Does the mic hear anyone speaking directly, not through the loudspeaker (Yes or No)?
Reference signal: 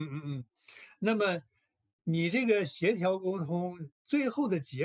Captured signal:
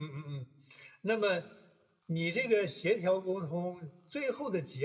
No